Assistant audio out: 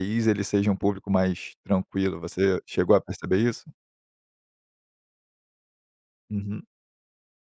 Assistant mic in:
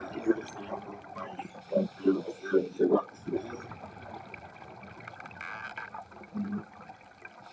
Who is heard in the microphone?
echo only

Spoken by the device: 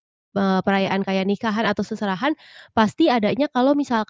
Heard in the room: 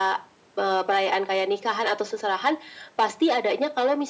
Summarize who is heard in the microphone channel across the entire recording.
echo only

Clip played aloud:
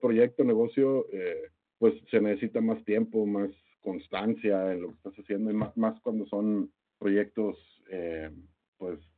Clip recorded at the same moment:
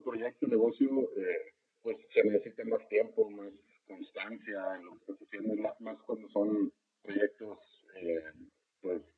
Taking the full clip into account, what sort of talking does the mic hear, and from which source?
echo only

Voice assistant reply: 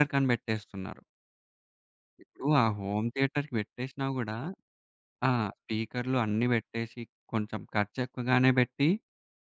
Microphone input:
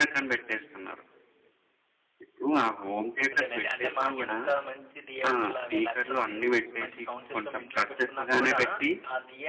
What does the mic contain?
both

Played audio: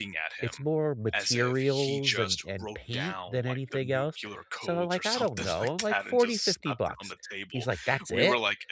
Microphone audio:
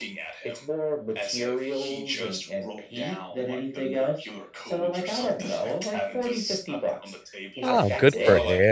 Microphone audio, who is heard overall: both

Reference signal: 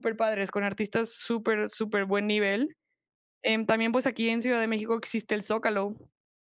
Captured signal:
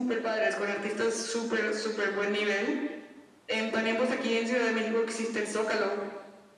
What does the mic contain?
echo only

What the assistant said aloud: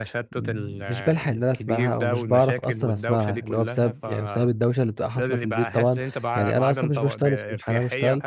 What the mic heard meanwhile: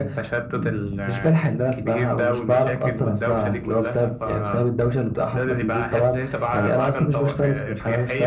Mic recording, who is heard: echo only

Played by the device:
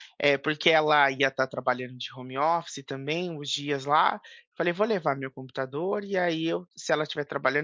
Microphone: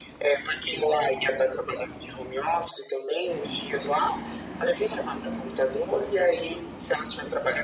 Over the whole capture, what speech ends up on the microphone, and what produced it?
echo only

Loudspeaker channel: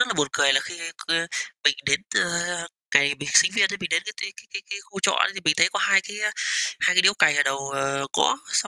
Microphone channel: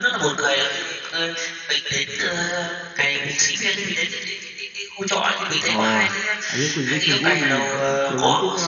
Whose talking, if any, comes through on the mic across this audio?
both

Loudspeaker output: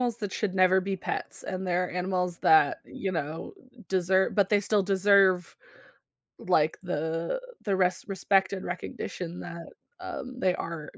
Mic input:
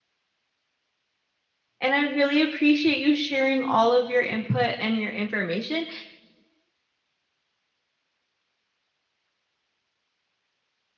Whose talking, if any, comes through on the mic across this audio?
user only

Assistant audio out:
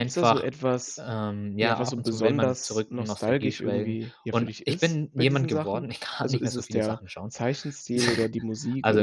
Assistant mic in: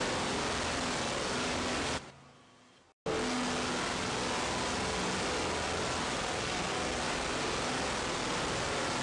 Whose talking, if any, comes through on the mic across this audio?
neither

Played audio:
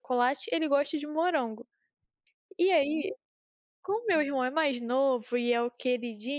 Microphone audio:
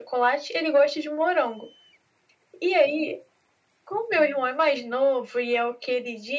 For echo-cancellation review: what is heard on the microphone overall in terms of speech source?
echo only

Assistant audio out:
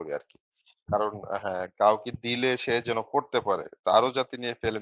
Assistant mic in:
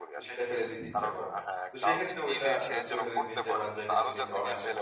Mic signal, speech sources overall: both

